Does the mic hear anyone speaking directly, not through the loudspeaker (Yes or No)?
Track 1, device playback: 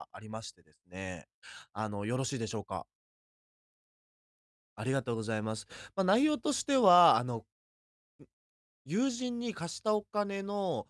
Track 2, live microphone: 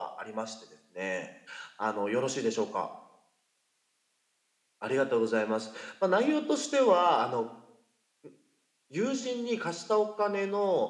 No